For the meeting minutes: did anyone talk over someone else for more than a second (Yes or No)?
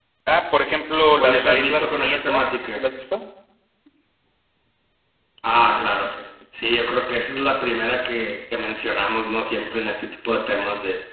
Yes